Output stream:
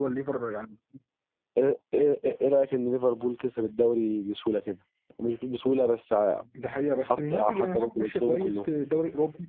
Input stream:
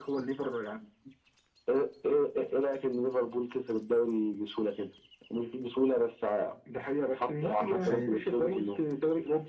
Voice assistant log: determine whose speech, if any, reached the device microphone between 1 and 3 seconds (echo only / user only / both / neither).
echo only